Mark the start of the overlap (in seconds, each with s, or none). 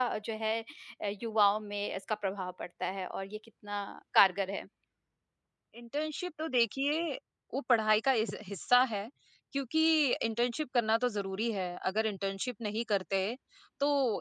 none